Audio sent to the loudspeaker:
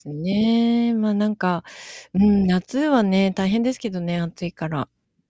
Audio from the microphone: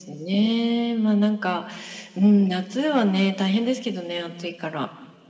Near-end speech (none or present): none